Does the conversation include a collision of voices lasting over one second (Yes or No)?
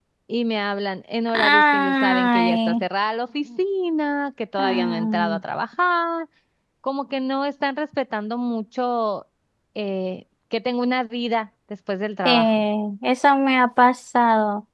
Yes